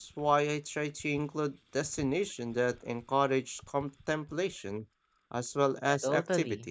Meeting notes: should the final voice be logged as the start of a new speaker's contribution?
Yes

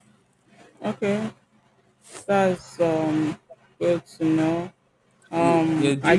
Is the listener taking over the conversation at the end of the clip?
Yes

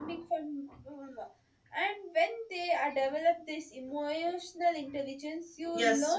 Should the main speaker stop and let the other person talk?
No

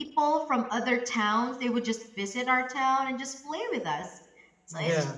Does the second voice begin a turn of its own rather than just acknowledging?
No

